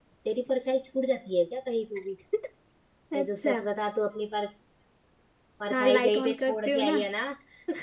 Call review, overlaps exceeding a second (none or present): present